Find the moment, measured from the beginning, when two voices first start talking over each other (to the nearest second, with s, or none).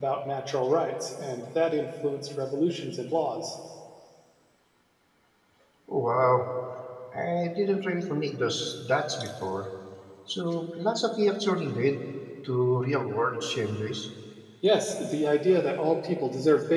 none